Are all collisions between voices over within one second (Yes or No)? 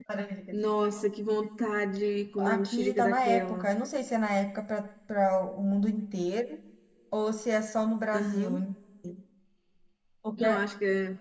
No